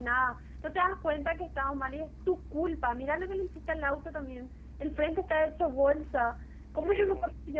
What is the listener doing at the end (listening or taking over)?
listening